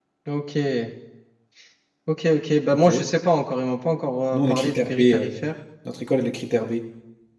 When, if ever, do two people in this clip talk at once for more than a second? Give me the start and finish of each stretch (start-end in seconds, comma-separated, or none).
4.3-5.5